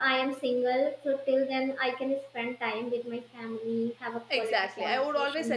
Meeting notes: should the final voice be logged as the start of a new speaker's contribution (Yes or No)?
Yes